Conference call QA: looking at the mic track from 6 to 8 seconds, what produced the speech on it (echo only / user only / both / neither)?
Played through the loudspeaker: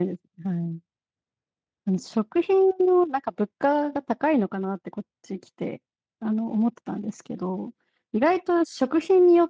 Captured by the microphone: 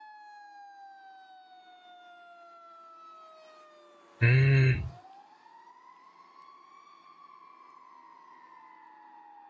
neither